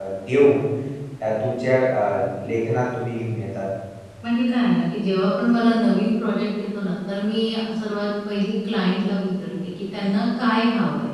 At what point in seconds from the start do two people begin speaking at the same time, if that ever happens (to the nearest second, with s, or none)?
none